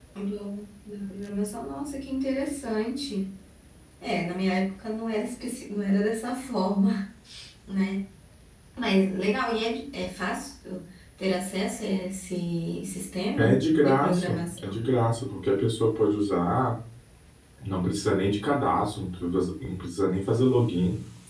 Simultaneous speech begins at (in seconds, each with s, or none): 13.4 s